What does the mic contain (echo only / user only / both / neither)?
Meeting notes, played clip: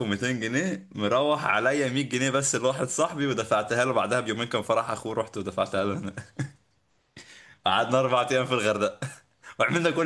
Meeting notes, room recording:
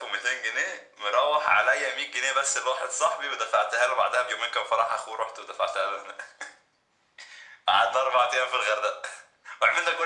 echo only